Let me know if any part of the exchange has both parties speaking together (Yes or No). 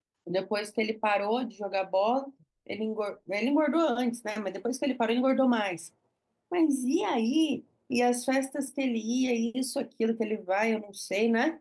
No